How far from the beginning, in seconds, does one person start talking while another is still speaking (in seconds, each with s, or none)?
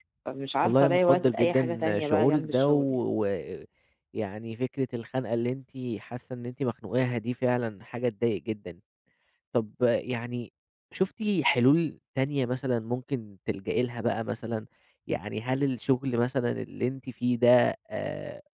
0.6 s